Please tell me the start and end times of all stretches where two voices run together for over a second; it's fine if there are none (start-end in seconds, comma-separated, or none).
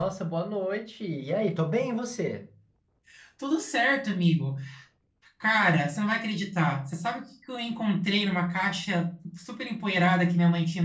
none